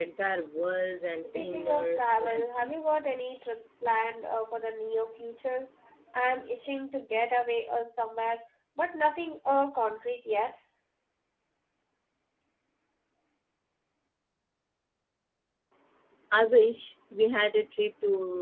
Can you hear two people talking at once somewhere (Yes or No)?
Yes